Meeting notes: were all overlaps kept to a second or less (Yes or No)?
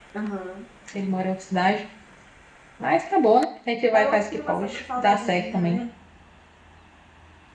No